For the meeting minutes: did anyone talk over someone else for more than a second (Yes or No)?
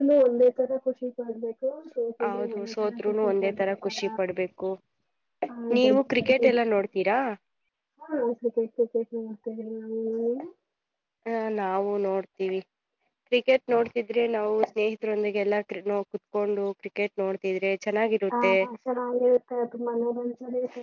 Yes